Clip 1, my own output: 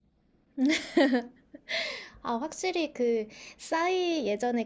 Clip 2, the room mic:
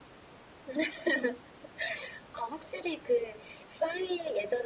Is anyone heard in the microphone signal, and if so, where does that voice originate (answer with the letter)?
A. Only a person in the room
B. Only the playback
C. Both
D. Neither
B